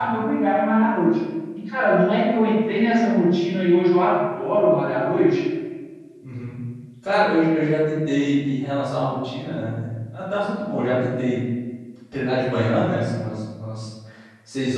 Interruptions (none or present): none